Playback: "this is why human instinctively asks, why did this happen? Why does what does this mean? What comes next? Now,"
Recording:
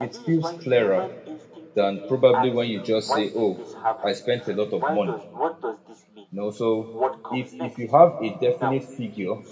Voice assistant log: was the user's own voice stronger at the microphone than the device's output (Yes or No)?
Yes